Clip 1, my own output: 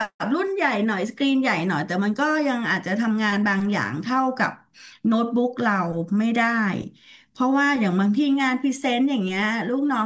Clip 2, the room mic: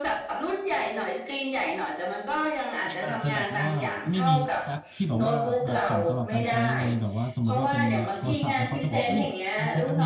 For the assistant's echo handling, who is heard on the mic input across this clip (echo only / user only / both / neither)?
both